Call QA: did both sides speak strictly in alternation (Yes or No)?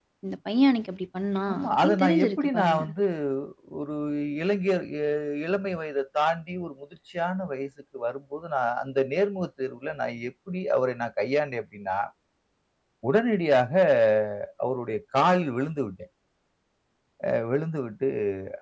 No